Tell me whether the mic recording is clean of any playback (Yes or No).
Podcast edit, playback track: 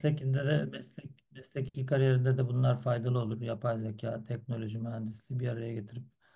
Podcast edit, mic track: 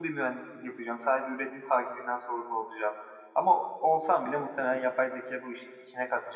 Yes